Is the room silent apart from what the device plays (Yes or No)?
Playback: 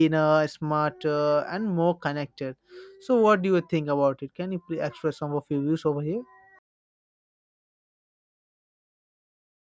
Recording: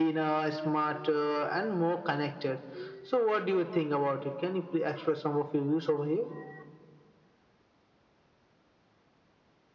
Yes